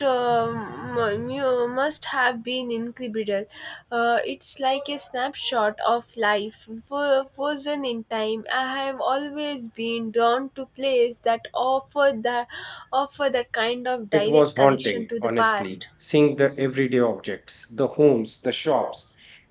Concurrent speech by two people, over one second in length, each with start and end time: 14.1-15.8

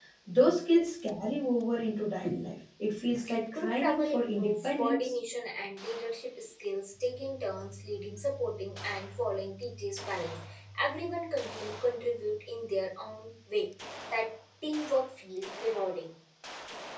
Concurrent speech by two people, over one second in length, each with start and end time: 3.5-5.1

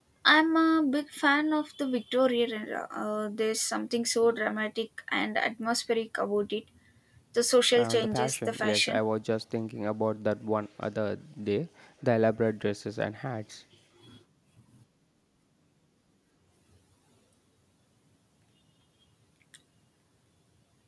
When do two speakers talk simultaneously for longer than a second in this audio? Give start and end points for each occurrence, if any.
7.7-9.0

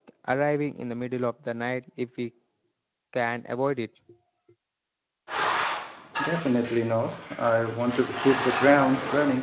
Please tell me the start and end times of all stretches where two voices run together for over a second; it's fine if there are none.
none

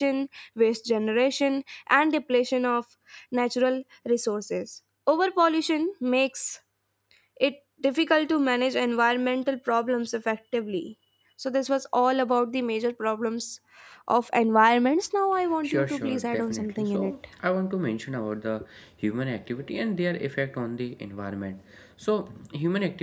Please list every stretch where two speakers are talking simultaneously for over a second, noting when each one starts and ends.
15.6-17.1

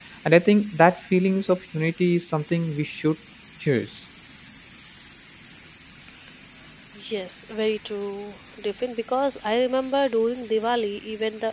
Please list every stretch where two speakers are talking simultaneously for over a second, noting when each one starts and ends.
none

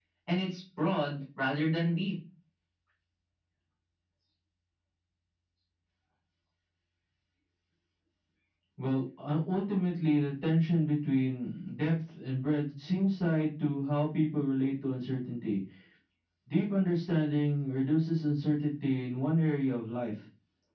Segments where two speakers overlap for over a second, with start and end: none

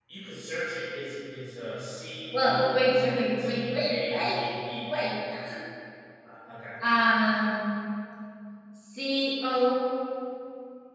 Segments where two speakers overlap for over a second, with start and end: 2.3-4.3

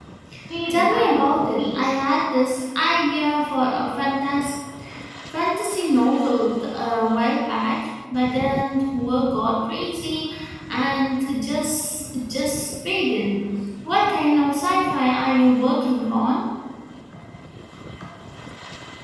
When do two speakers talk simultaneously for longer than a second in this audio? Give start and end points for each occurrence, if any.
0.7-1.9

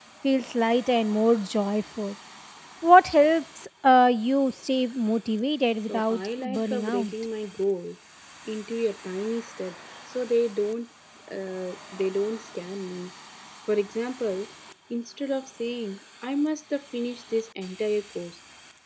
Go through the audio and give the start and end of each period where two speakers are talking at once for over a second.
5.9-7.1

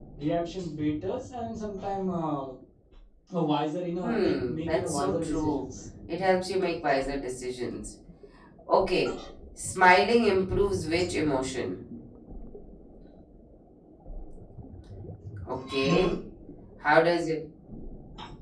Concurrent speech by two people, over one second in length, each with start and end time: 4.0-5.7

